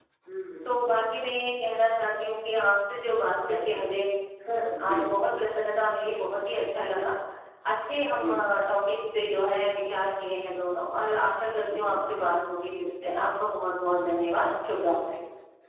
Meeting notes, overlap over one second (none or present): none